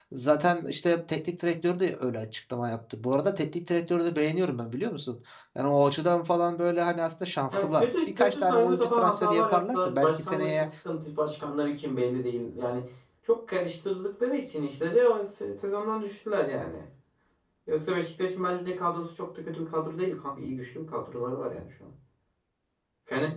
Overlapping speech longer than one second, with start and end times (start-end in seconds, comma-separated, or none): 7.5-10.7